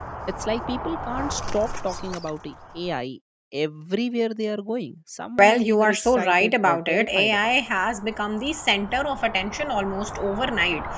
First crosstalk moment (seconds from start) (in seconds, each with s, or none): 5.4 s